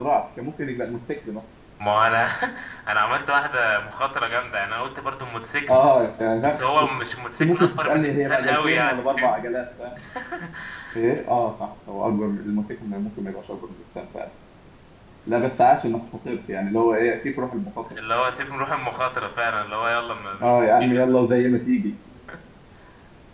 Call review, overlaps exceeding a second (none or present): present